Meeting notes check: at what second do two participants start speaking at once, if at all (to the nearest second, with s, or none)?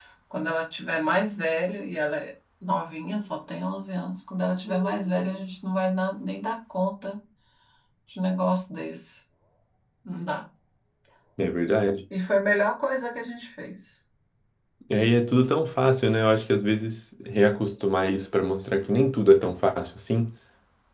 none